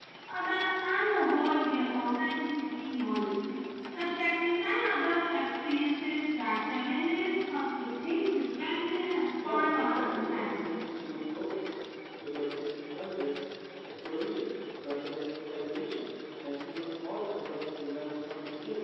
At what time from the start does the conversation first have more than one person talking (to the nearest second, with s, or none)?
9 s